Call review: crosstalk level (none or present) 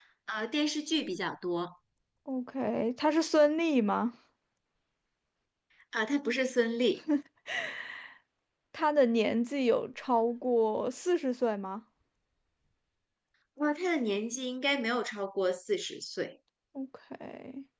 none